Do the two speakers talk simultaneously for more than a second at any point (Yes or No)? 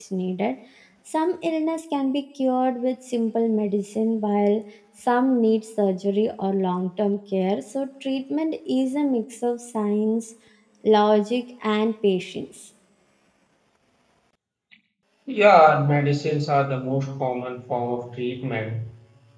No